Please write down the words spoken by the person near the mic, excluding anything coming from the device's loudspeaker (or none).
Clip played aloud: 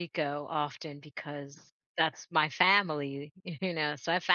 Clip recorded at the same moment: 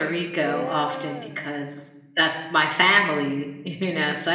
Yeah.